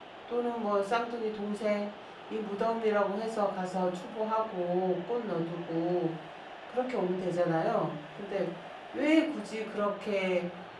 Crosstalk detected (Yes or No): No